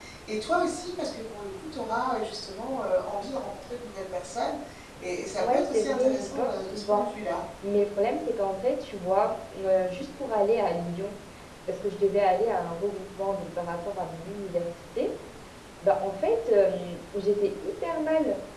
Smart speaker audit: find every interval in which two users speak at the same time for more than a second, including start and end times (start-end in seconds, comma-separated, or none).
5.4-7.1